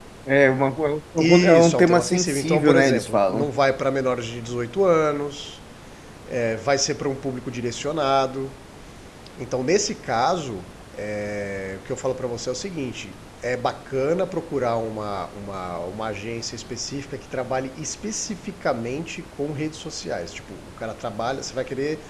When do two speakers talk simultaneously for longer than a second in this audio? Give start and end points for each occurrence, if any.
1.4-3.5

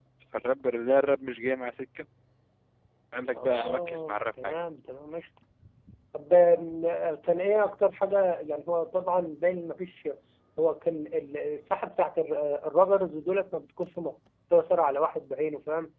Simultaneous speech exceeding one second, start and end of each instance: 3.3-4.6

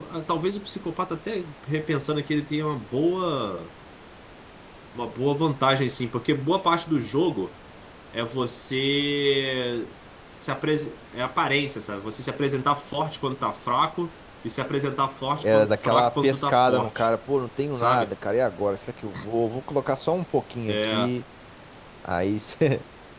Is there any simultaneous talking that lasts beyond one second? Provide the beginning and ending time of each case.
15.4-17.1

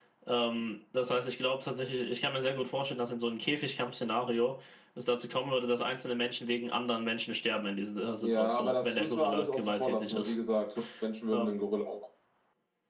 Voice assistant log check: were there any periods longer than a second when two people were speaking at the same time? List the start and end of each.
8.2-10.4

